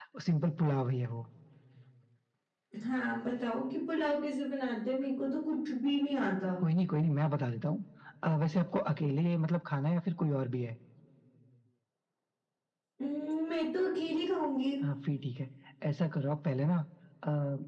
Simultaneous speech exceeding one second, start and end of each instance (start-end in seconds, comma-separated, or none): none